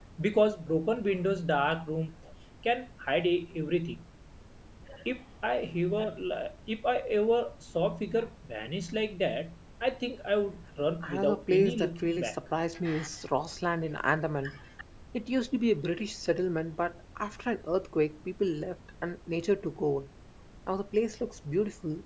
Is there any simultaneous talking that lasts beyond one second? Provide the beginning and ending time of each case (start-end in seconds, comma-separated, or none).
11.0-12.4